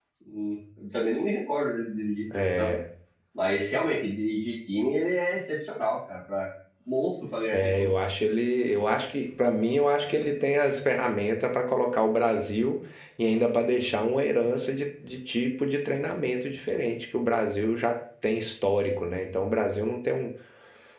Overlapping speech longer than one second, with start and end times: none

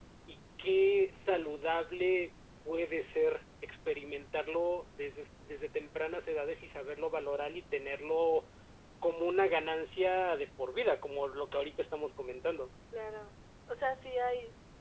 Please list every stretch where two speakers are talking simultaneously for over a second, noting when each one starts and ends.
none

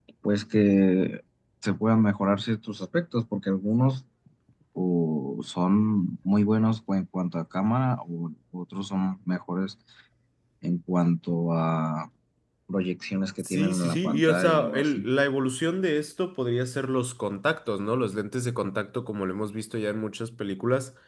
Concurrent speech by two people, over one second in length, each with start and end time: 13.4-15.0

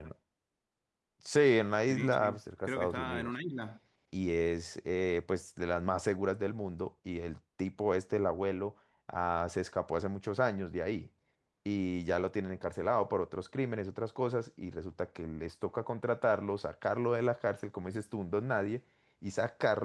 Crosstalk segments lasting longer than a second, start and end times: 1.9-3.3

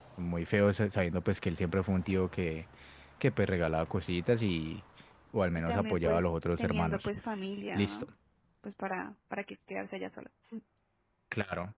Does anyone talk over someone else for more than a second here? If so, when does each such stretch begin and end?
5.6-7.1

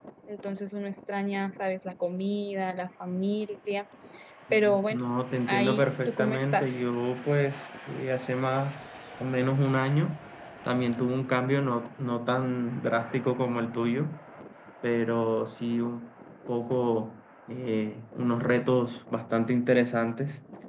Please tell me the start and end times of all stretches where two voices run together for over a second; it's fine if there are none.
5.5-6.8

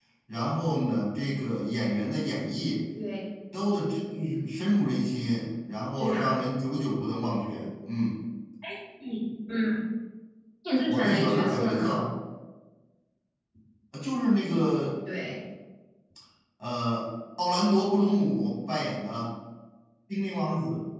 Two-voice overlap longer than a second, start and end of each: 10.9-12.1

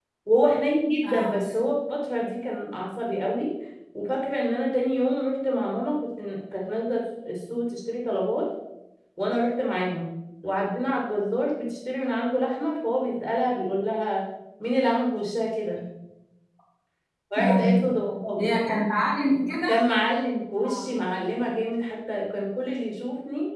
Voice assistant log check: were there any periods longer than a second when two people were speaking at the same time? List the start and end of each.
none

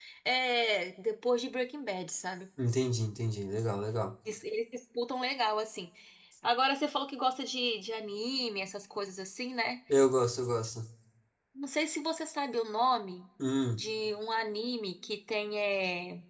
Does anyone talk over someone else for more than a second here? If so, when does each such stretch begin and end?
none

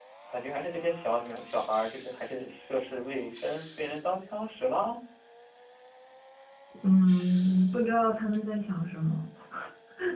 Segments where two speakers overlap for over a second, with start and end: none

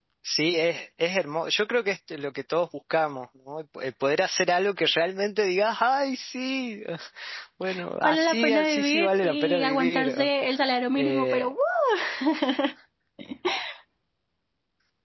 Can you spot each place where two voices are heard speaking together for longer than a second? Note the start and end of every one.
8.0-10.2

